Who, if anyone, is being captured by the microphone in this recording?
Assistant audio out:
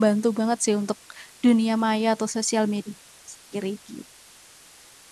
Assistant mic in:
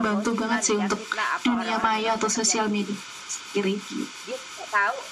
both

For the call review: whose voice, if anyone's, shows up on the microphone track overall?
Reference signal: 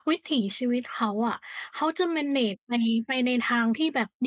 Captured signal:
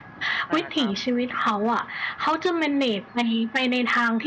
both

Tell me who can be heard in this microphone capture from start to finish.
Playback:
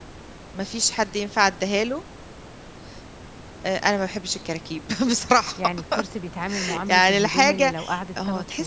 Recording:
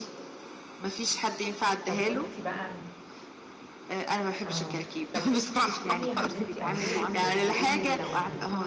both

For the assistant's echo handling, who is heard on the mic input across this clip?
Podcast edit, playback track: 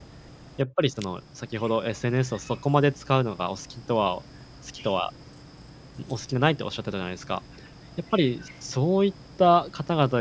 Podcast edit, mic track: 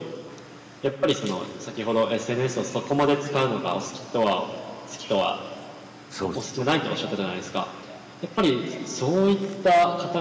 both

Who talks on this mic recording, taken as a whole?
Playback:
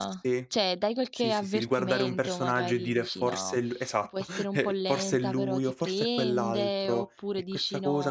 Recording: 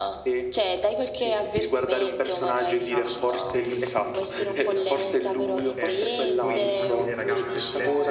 both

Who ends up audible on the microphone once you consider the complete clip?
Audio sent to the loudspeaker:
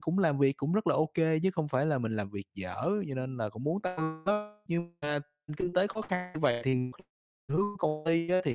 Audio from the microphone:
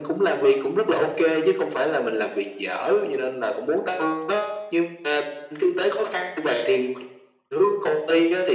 echo only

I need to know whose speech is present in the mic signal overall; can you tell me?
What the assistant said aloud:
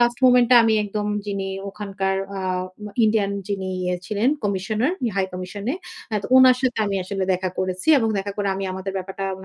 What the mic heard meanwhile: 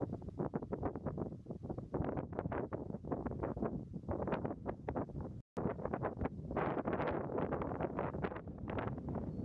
neither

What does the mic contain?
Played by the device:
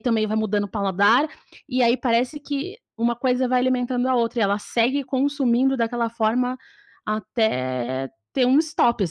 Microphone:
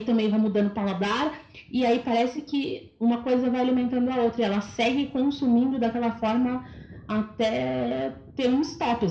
echo only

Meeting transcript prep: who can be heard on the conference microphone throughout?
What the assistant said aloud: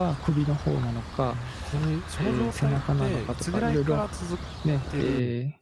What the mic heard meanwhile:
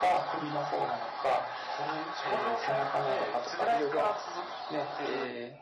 echo only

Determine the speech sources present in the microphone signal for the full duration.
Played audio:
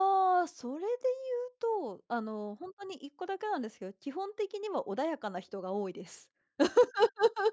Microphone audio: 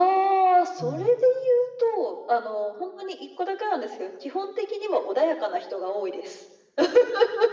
both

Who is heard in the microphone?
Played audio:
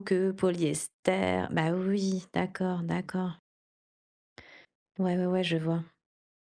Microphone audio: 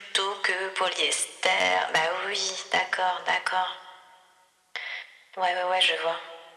echo only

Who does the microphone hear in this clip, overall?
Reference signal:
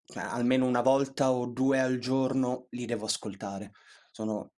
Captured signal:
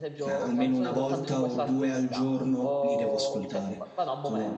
both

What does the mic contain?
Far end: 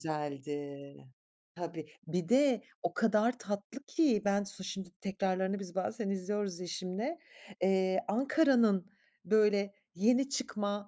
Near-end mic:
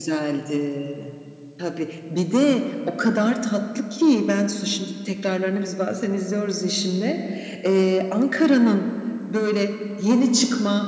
echo only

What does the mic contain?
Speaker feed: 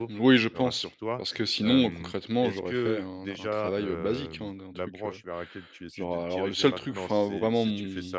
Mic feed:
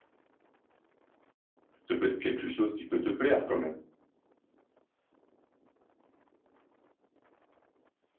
user only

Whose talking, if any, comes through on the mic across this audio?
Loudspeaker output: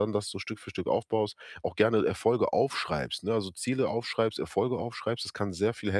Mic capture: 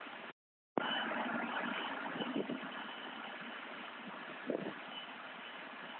neither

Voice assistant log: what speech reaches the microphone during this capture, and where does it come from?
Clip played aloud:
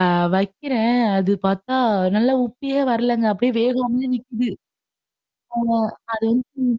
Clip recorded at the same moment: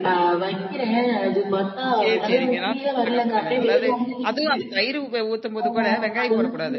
both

